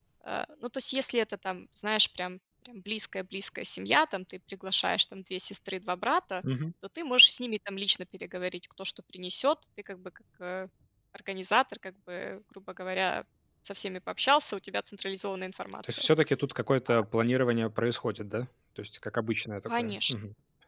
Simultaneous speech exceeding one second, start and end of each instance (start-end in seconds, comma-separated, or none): none